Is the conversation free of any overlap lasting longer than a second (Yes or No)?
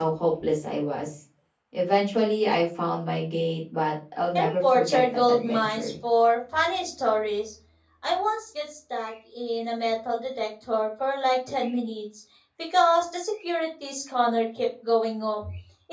No